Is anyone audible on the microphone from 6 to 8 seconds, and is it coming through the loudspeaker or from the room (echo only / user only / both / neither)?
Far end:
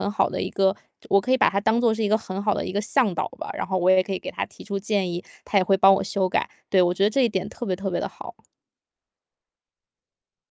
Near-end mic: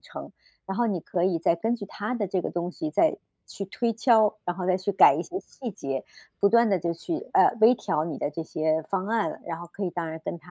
user only